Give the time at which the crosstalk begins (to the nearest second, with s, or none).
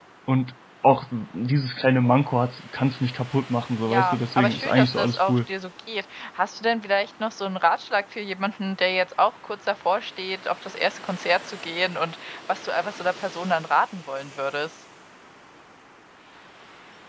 4 s